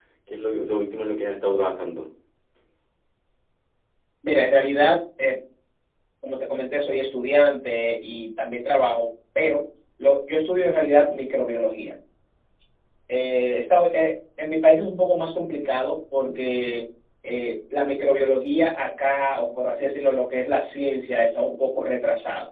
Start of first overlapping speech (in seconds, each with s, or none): none